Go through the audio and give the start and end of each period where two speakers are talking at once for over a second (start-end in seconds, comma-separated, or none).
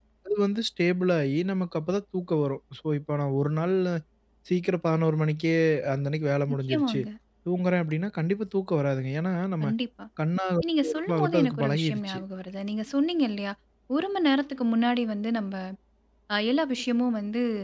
10.8-12.2